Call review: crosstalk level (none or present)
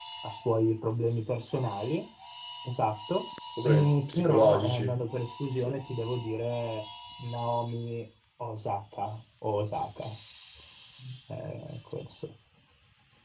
present